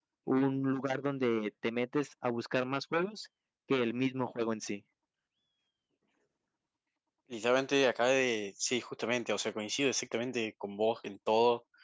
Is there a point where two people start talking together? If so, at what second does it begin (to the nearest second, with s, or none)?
none